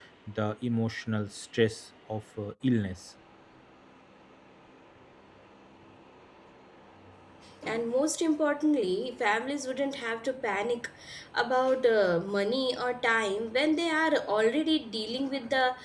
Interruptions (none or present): none